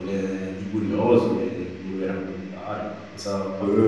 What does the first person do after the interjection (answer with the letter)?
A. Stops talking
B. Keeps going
A